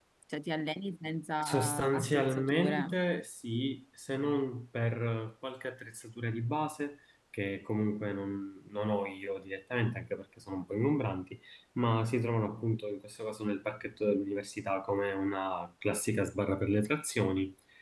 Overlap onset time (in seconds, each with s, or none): 1.4 s